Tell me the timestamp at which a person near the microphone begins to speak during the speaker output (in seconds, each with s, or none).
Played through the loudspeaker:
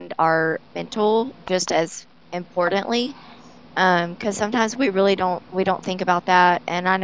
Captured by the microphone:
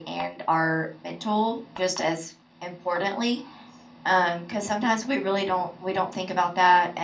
none